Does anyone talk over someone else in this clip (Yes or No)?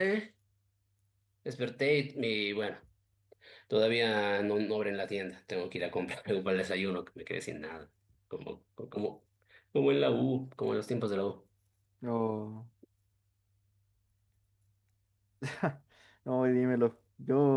No